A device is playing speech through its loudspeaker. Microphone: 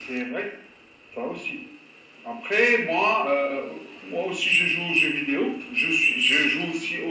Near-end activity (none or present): none